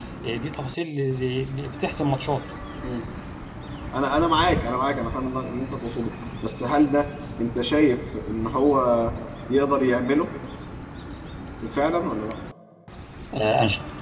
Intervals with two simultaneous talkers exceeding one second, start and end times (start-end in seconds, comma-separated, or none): none